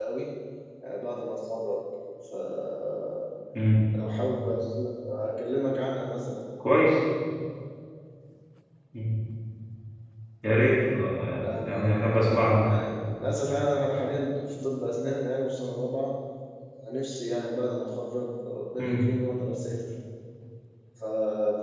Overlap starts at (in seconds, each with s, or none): 11.4 s